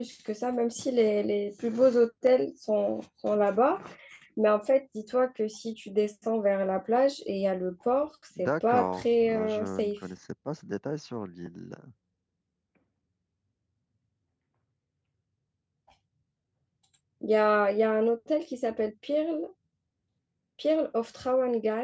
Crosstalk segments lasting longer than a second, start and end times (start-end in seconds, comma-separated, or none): 8.4-9.9